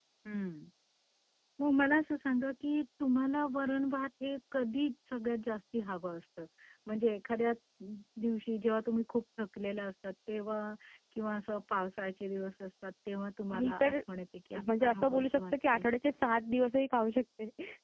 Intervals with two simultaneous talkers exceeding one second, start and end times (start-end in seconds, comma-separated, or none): 14.5-15.9